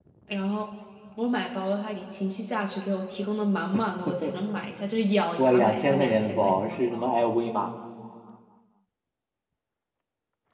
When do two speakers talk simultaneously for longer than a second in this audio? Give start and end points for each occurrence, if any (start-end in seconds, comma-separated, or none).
5.4-7.1